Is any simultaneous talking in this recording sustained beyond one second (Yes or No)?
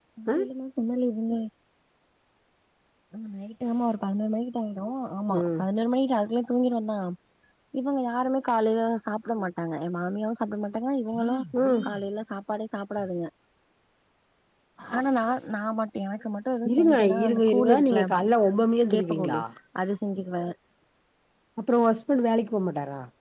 Yes